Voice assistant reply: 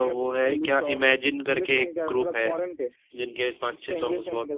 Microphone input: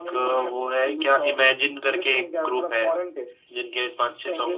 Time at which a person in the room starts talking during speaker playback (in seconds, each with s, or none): none